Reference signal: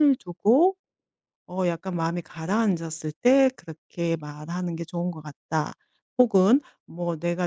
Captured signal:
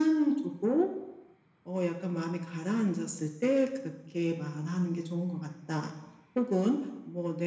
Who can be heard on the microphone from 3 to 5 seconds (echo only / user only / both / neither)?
echo only